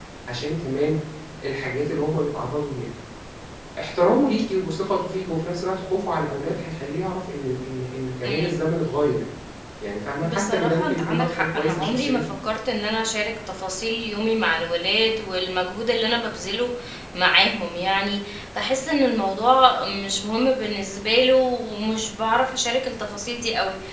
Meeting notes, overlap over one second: present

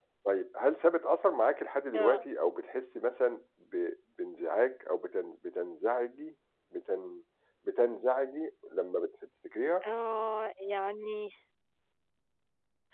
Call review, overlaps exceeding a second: none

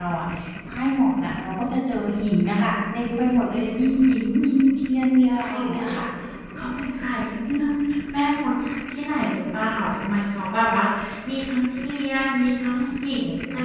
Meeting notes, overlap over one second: none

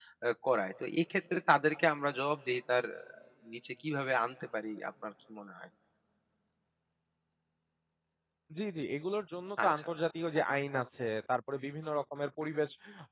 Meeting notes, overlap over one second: none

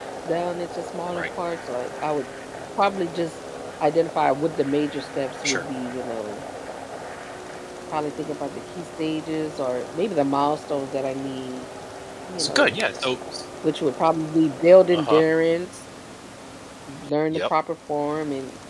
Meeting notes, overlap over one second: none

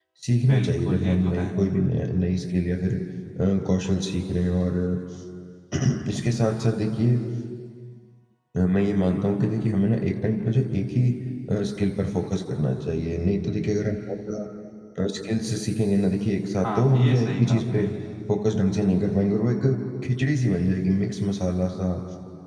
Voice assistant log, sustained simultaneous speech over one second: present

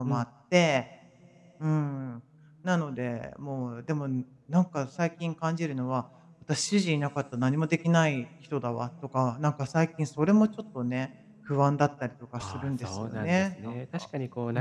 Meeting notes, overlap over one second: present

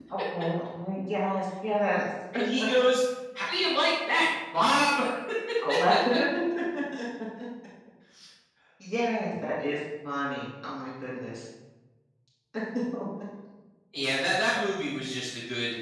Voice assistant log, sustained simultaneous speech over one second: none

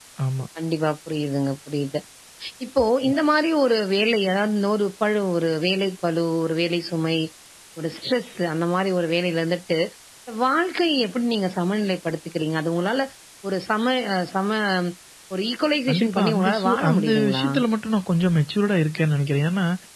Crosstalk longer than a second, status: present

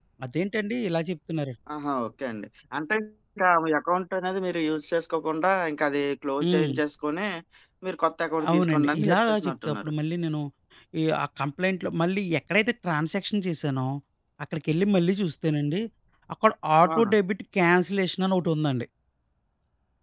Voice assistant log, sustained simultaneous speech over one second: present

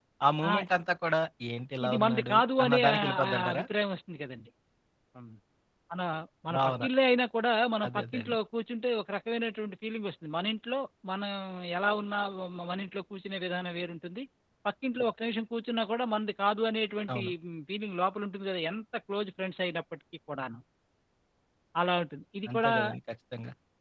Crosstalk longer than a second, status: present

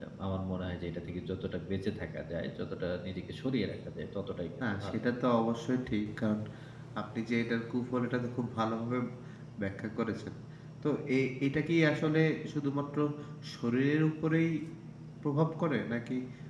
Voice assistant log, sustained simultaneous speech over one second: none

